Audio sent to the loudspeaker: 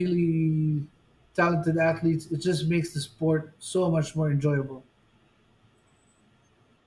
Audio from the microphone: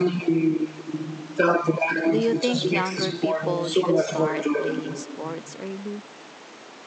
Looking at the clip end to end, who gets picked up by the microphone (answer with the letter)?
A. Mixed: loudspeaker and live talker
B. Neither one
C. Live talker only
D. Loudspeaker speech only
A